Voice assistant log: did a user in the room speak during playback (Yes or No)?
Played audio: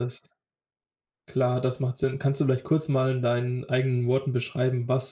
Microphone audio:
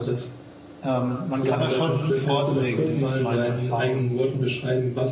Yes